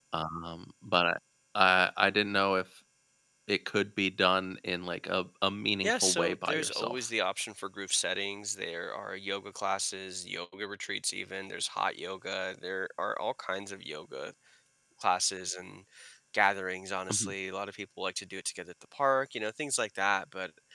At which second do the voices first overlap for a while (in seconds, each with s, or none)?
5.8 s